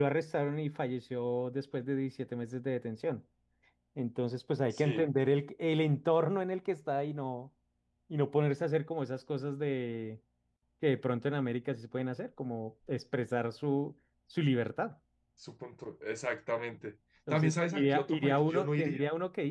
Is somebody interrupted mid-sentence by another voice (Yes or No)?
Yes